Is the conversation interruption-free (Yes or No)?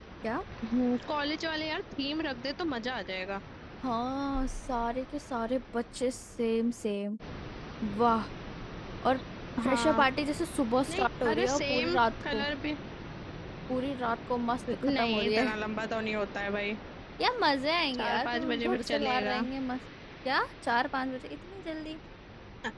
No